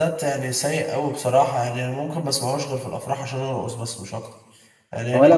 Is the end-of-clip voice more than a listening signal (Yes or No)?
Yes